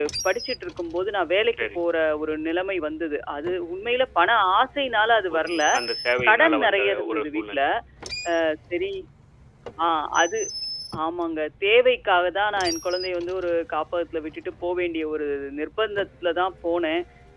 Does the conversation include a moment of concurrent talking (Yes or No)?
Yes